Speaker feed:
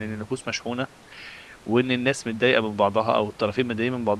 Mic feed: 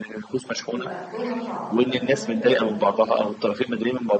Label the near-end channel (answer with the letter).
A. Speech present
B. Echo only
A